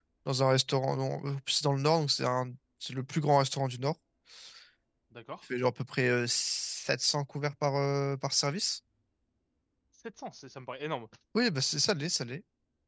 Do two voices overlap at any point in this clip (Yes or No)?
No